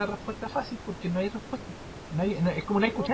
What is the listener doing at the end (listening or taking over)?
listening